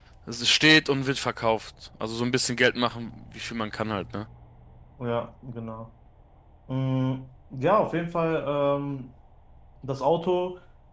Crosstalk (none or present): none